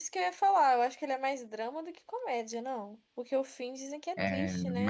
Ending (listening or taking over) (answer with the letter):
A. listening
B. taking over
B